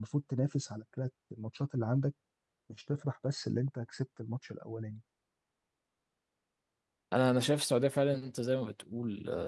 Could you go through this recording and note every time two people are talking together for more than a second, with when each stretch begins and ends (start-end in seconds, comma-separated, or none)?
none